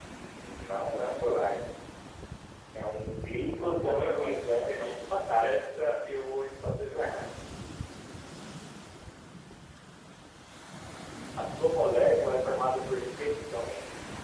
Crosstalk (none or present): present